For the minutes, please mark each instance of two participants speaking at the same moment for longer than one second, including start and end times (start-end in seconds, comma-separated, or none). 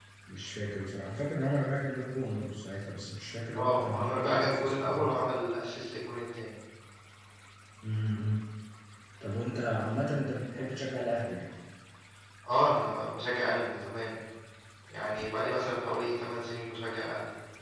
3.5-5.1